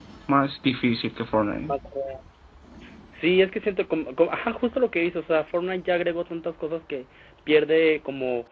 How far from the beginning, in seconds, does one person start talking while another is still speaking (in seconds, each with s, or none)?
none